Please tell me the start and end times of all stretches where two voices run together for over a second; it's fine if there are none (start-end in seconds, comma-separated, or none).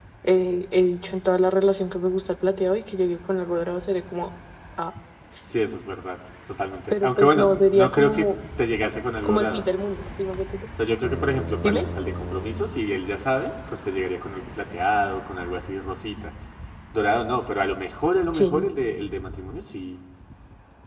6.9-8.3